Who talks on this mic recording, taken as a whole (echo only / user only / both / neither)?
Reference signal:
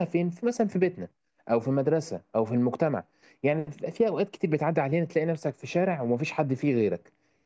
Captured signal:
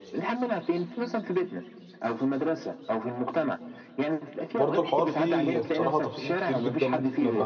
both